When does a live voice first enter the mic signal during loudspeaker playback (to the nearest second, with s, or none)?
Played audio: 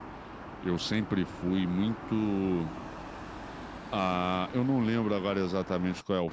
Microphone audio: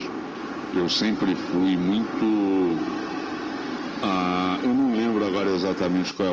none